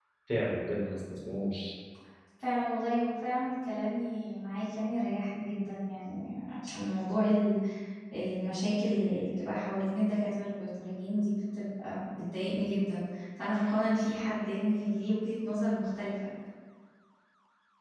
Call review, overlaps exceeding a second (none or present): none